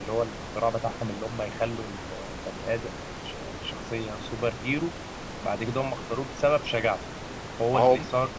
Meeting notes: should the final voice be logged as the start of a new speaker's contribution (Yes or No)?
No